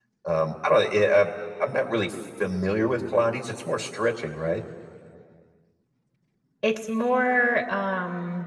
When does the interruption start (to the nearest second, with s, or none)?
none